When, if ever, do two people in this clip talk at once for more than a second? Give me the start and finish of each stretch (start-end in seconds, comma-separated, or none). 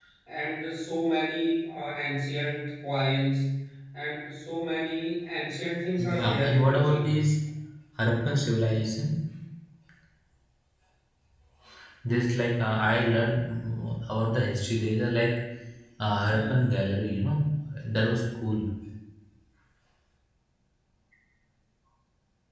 6.0-7.2